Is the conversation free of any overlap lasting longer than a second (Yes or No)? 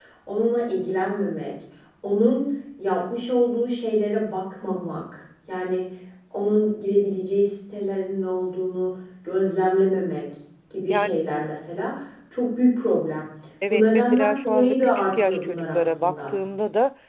No